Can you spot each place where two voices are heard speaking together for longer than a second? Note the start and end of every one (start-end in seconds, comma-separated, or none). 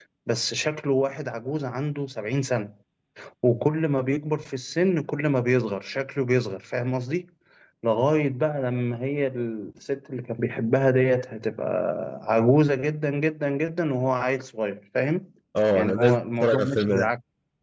15.8-17.1